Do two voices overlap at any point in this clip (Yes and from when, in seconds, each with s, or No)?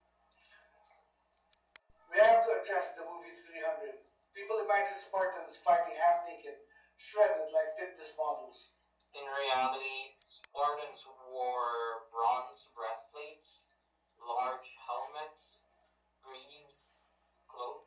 No